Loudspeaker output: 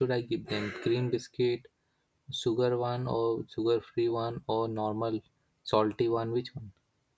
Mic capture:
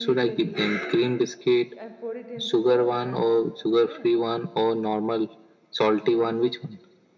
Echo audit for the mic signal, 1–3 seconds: both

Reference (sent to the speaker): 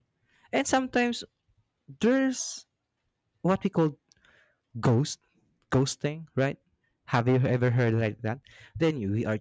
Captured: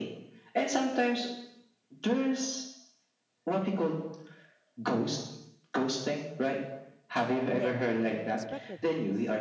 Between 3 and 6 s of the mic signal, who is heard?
echo only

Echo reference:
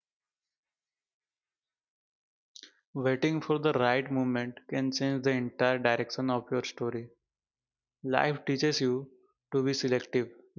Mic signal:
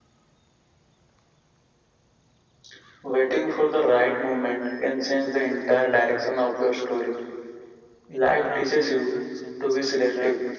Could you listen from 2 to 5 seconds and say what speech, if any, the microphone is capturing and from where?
echo only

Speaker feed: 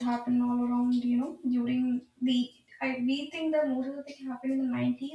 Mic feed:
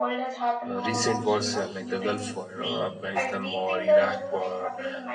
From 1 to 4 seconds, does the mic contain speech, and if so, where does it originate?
both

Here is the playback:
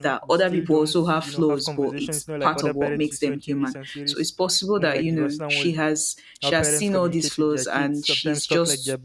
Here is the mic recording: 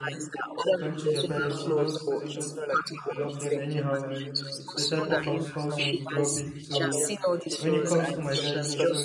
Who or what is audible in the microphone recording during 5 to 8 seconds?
both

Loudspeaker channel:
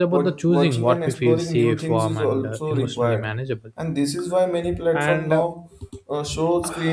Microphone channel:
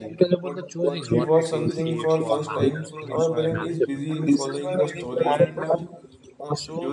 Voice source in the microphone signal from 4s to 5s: both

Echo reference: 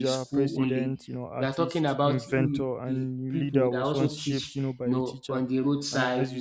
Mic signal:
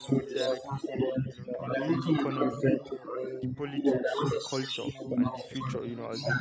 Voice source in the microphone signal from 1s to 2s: both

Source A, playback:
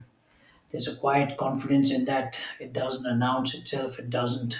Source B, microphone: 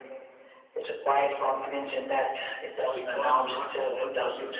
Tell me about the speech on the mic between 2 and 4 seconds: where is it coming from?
both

